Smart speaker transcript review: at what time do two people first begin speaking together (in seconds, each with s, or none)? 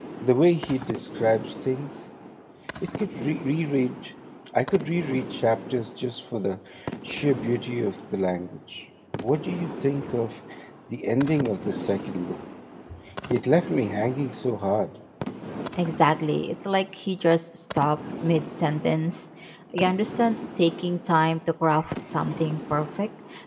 none